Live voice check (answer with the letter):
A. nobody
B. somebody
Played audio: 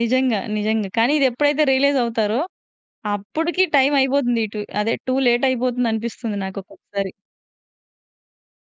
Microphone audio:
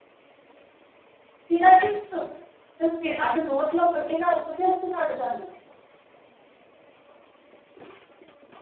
B